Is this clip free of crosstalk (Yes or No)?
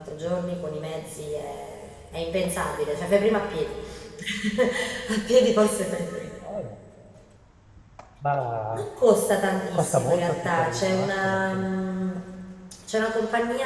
No